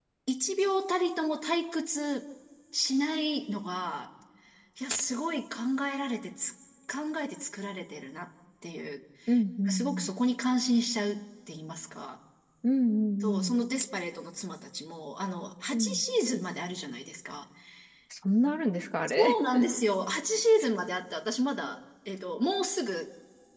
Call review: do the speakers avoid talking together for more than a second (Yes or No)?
Yes